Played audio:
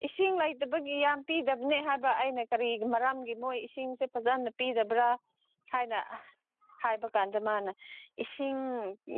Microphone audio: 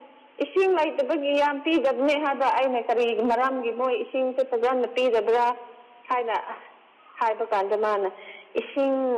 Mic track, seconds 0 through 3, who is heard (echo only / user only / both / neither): echo only